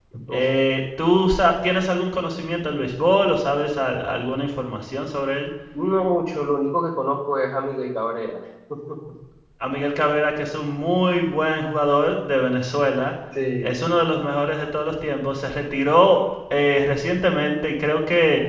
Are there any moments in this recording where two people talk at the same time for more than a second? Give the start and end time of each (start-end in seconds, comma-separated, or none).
none